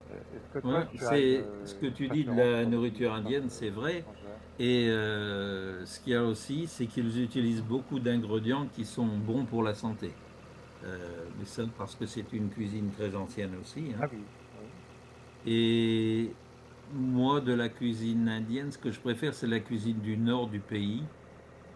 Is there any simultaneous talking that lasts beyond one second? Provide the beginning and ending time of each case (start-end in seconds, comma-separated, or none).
0.6-3.8